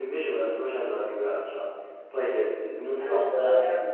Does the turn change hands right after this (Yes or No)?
No